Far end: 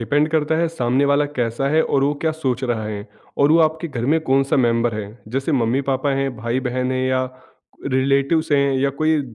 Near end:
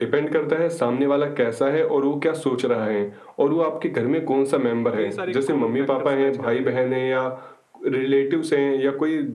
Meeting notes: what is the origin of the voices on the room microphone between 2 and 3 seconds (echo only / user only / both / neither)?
echo only